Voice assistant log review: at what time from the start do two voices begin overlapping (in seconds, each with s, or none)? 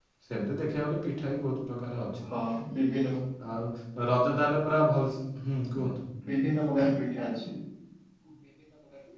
none